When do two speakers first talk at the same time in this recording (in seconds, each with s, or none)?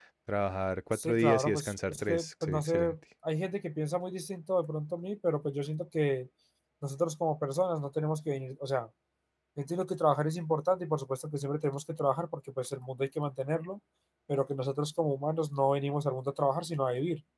0.9 s